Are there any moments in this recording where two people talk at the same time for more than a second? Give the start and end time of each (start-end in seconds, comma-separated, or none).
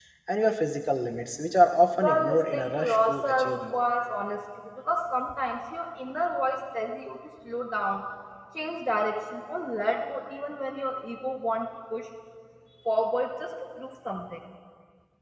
2.0-3.8